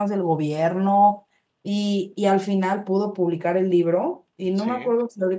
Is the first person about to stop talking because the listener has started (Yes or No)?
No